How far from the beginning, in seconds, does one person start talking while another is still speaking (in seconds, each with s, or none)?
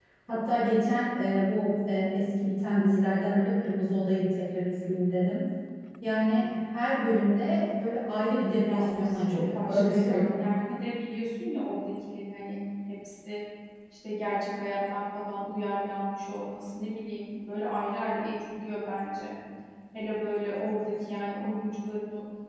8.6 s